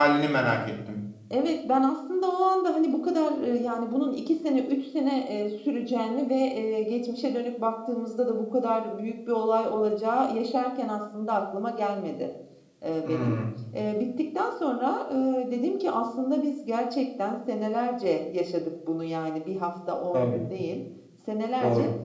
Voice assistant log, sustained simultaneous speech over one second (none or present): none